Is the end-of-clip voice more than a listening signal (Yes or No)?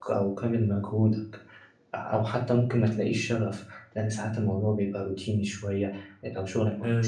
No